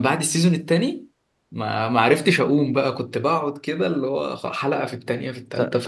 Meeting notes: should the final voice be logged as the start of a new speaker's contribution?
Yes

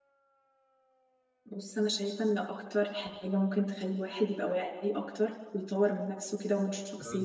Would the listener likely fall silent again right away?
Yes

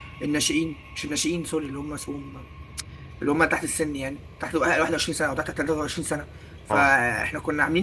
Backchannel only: Yes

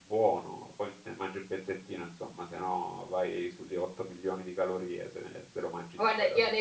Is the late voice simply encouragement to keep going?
No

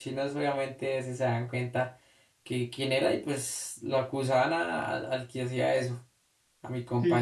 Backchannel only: Yes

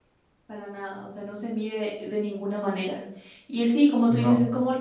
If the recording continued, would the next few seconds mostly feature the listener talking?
No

